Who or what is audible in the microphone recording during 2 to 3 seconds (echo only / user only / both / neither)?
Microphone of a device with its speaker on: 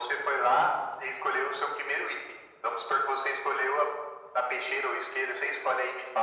echo only